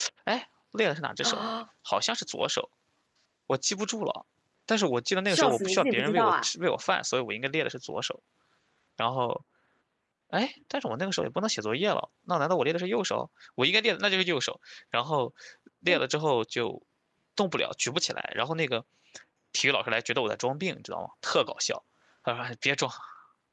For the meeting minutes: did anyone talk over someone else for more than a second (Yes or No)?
Yes